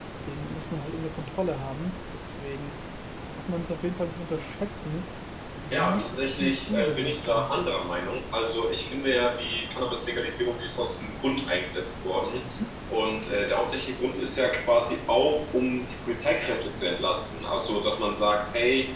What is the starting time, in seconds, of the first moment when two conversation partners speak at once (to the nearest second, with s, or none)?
6 s